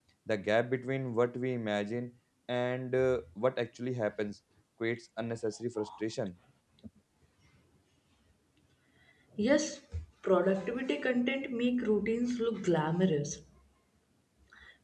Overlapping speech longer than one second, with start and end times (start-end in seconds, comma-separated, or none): none